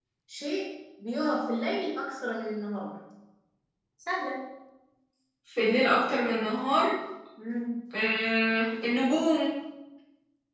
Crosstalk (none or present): none